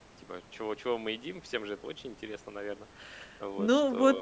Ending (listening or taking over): taking over